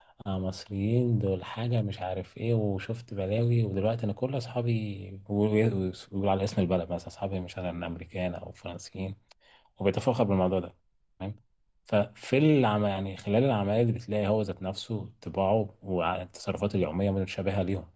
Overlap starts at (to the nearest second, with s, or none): none